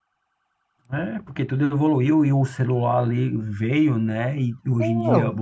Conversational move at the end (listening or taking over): listening